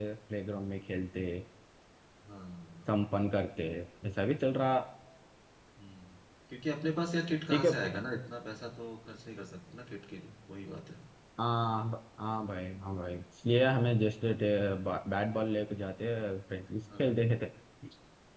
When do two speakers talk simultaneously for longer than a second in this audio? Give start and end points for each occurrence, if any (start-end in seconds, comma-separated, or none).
none